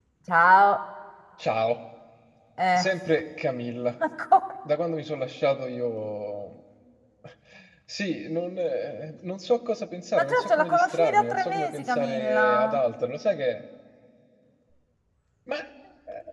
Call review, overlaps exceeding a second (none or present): present